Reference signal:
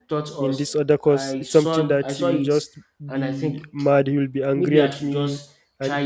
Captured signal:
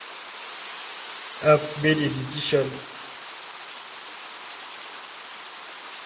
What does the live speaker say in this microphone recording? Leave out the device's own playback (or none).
I've made a decision